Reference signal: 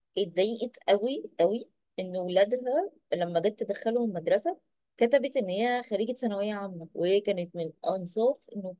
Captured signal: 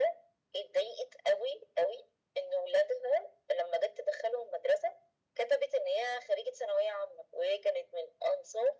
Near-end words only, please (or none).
none